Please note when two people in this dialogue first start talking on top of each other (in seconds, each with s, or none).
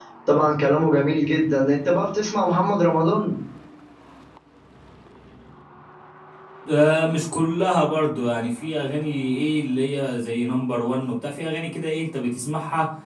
none